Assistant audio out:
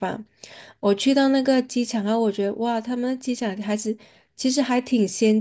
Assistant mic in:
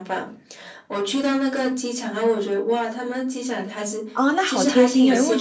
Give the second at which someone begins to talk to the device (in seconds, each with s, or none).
4.1 s